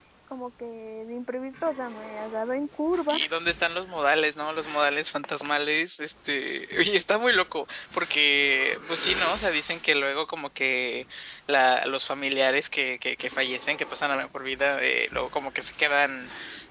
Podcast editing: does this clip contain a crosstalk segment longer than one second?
No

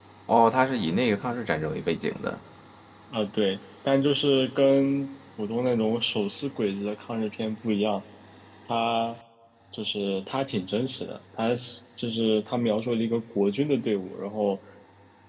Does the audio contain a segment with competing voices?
No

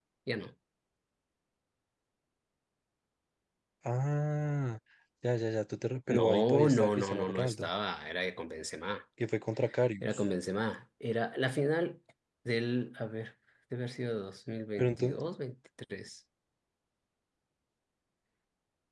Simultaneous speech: Yes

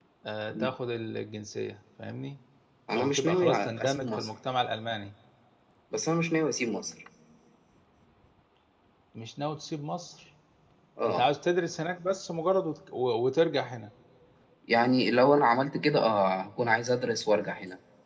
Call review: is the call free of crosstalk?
No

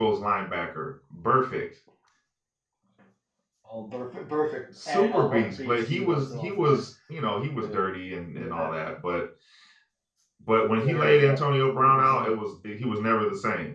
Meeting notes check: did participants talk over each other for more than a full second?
Yes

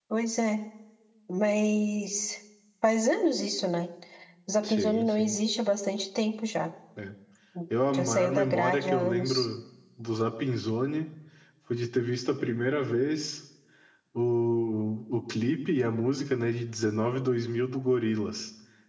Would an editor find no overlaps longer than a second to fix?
No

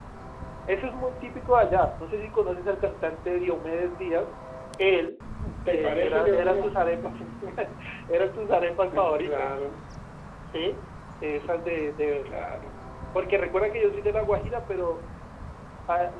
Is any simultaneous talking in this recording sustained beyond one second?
Yes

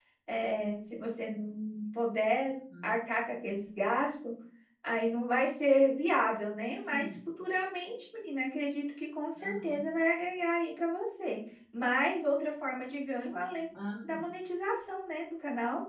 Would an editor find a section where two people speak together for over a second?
No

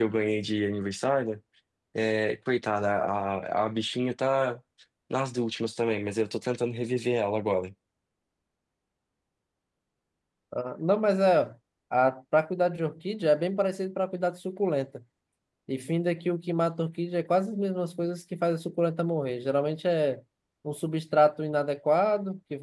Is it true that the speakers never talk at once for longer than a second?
Yes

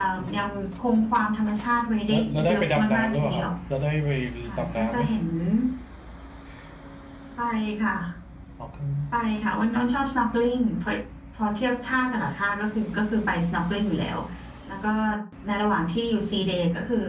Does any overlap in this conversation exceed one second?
Yes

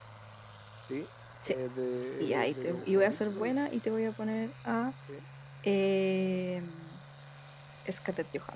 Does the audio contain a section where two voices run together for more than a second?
Yes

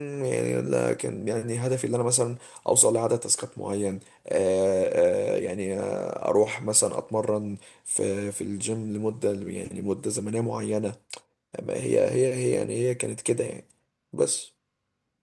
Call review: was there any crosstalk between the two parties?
No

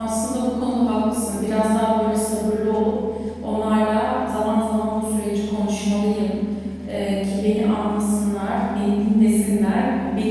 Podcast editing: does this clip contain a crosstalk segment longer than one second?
No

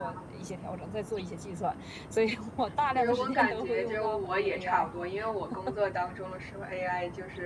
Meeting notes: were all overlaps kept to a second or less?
No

